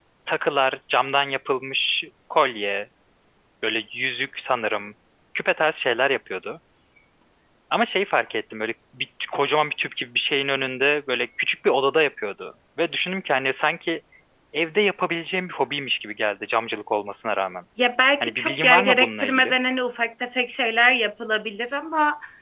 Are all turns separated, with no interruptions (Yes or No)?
No